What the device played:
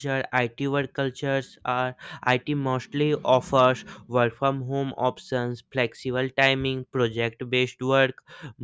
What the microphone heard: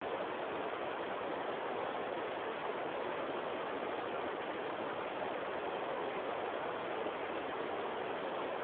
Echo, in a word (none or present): none